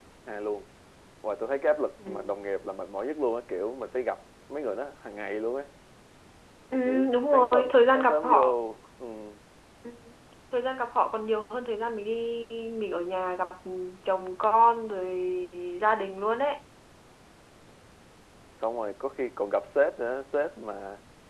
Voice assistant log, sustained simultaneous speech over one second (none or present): present